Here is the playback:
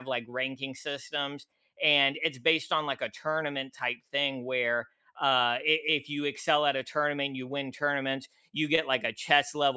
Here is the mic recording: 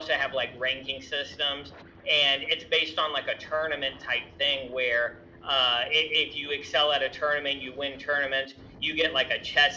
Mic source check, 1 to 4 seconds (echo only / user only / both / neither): echo only